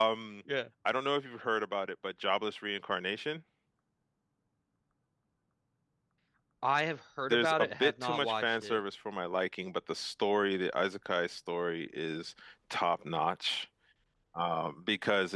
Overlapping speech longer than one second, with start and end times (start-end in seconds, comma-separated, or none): 7.3-8.8